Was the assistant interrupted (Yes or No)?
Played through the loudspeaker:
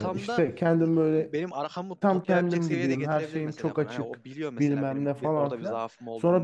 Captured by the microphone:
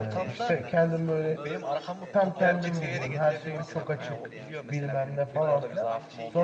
Yes